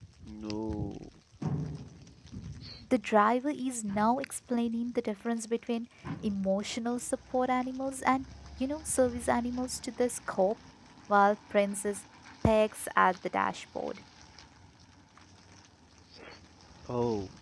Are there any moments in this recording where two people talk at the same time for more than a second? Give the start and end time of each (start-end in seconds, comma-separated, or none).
none